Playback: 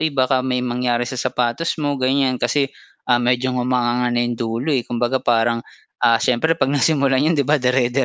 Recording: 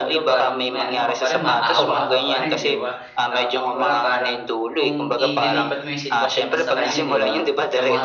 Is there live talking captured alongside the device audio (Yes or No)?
Yes